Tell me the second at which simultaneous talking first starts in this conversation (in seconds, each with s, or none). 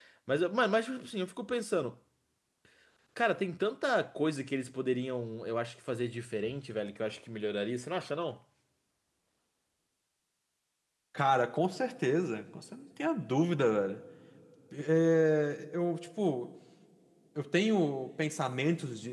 none